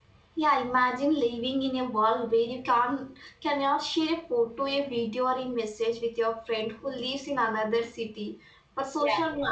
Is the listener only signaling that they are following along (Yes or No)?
Yes